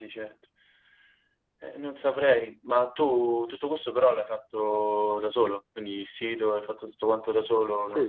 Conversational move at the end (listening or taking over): taking over